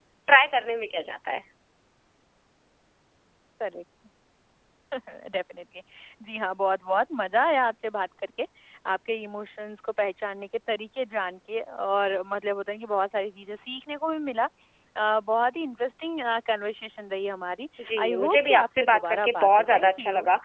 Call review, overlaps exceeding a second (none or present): present